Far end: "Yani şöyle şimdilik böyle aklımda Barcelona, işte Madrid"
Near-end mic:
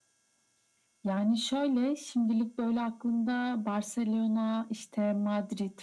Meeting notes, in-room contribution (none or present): none